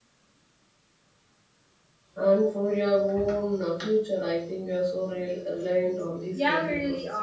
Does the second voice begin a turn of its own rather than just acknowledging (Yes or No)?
Yes